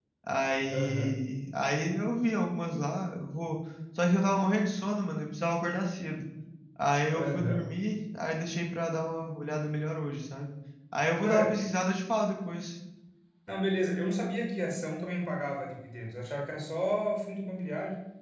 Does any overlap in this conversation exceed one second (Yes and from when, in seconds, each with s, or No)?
No